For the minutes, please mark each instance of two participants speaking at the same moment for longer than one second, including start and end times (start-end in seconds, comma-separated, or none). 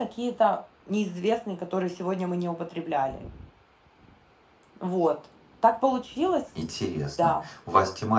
none